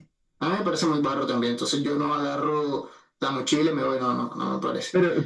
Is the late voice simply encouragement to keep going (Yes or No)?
No